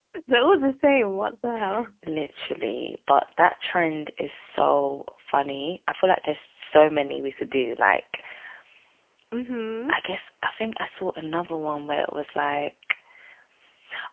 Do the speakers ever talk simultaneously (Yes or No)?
No